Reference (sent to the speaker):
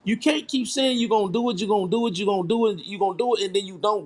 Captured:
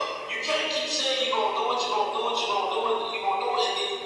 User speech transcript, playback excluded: none

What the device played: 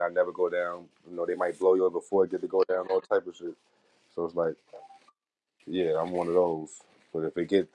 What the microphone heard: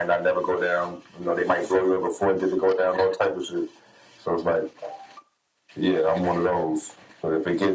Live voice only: none

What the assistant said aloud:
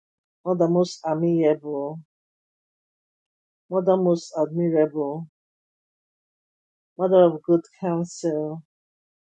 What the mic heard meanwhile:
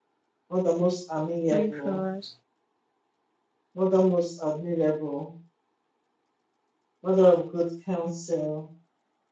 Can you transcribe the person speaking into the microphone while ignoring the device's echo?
Pray for us.

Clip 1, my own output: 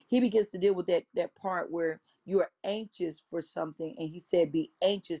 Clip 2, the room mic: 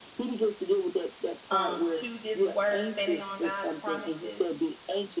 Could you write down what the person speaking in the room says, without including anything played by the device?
um, to this word, standing on God's promises,

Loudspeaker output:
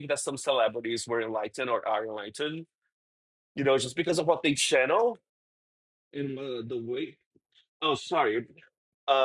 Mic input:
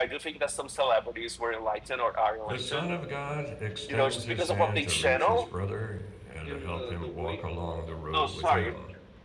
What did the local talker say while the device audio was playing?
The Son of God extends his hand to reach his brother and to help him walk along the road with him.

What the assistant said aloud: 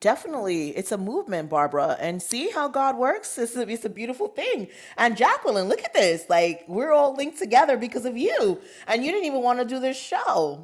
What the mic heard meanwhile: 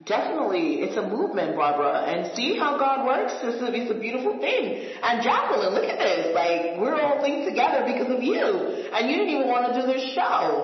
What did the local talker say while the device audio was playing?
none

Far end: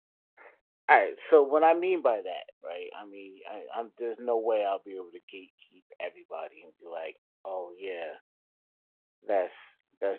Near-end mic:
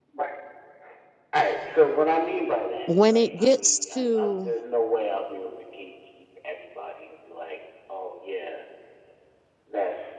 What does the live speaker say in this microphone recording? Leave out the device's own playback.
when it gets to

